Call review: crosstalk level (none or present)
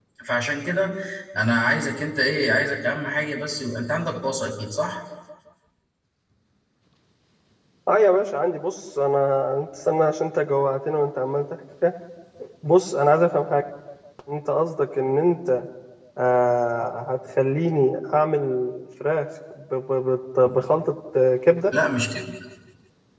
none